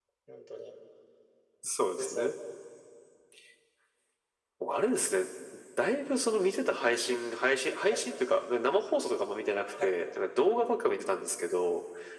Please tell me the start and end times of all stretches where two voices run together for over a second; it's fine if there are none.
none

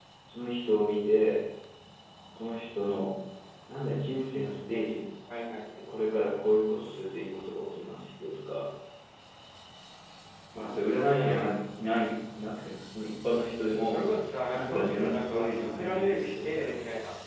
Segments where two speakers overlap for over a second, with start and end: 14.5-16.8

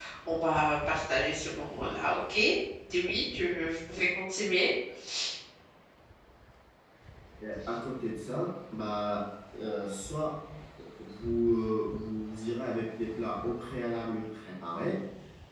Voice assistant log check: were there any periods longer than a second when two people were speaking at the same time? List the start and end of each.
none

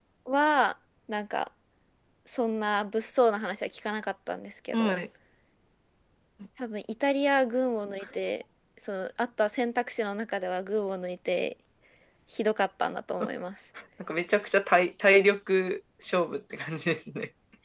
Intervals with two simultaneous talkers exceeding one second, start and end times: none

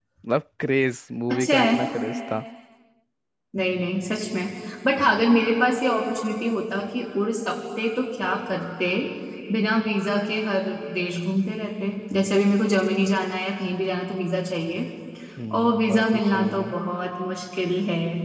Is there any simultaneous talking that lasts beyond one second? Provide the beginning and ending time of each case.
15.5-16.8

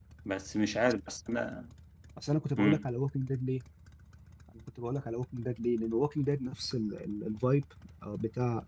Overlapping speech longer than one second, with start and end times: none

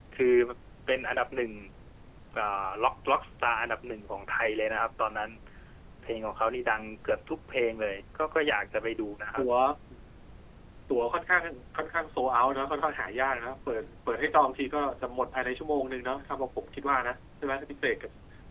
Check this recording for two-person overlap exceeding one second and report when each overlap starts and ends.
none

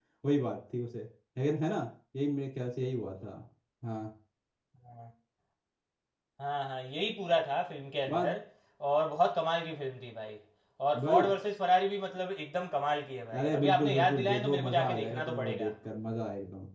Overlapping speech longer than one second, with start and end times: 13.3-15.7

